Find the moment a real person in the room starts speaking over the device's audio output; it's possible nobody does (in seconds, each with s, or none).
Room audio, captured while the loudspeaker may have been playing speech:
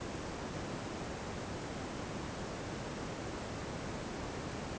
none